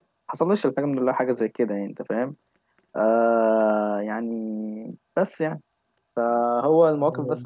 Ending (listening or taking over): listening